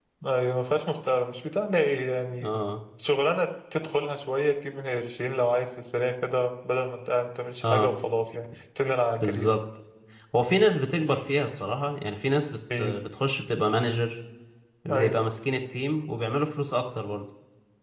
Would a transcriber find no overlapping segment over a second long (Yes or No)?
Yes